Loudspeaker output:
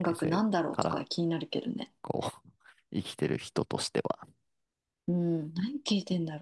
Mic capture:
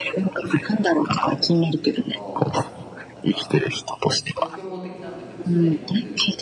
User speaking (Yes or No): Yes